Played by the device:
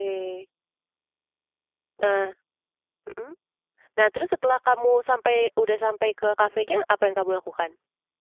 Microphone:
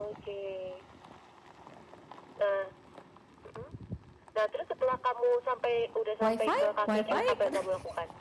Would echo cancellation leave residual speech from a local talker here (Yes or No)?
Yes